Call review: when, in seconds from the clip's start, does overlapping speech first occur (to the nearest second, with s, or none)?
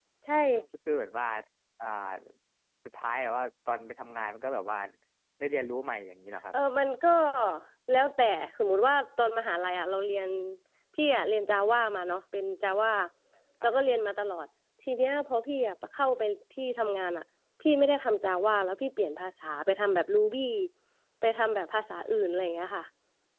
none